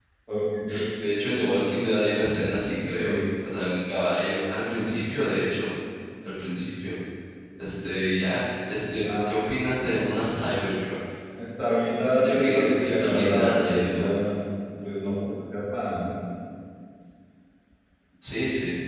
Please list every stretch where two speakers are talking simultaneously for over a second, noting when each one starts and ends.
12.3-14.2

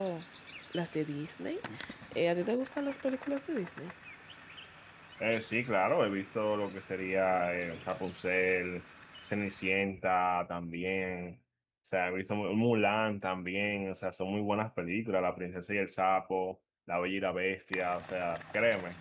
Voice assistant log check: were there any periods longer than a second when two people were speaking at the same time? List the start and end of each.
none

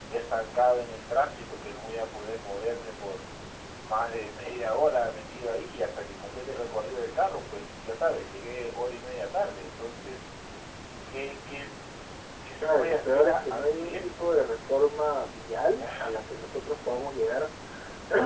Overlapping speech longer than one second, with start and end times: 12.6-14.4

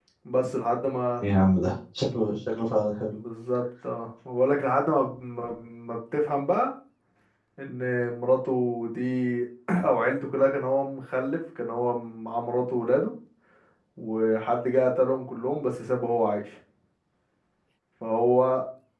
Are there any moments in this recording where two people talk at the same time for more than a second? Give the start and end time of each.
none

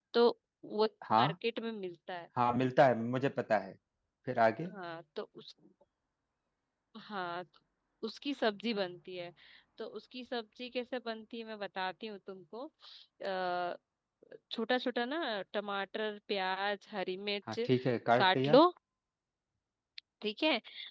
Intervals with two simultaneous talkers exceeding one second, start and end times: none

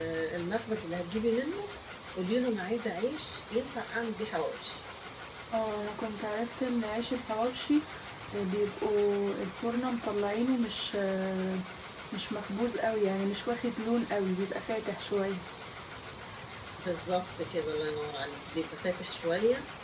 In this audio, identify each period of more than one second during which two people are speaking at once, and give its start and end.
none

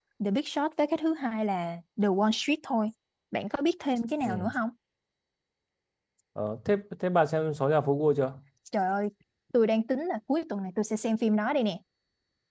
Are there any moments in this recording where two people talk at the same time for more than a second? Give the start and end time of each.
none

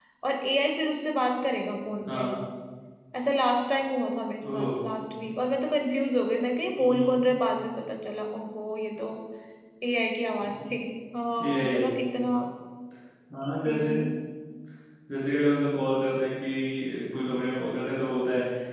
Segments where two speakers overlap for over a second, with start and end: none

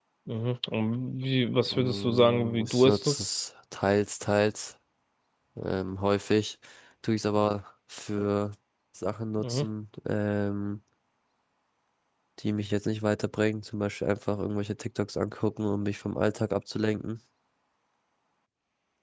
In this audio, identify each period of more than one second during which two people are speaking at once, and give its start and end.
1.7-3.2

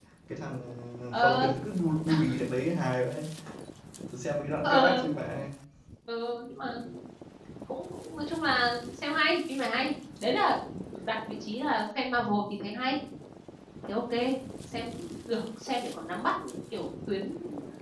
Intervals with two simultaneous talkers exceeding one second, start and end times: none

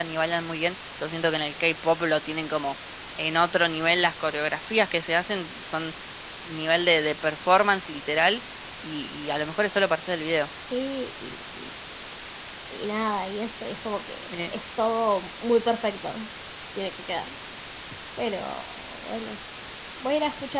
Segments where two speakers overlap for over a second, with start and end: none

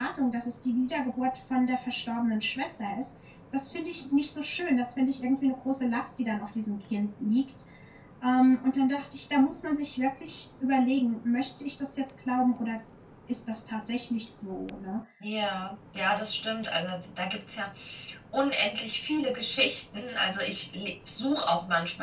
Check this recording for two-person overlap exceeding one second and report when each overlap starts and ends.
none

